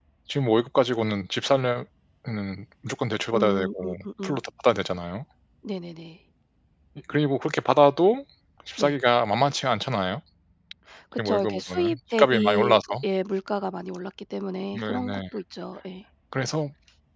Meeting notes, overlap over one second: present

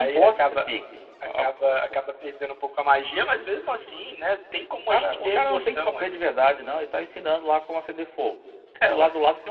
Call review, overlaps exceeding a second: present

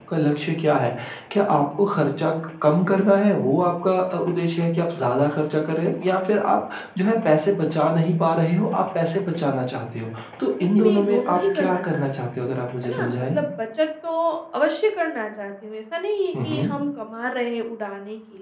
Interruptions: present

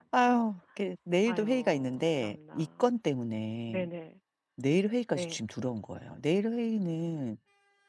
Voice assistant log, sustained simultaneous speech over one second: present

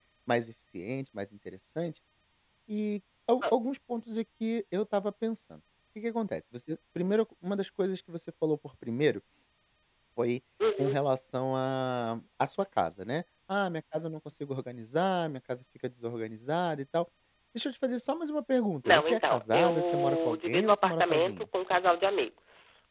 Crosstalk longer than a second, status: present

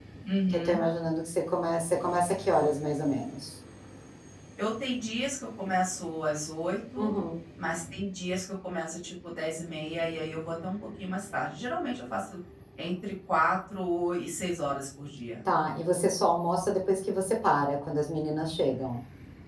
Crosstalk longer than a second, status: none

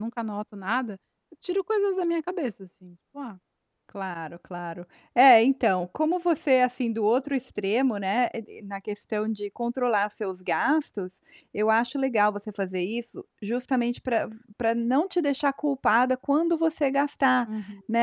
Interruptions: none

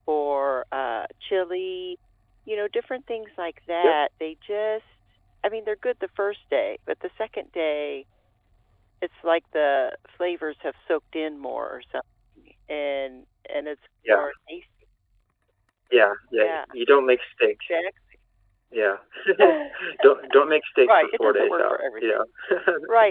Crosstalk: present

